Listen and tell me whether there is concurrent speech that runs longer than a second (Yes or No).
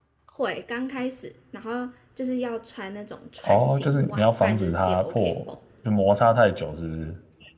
Yes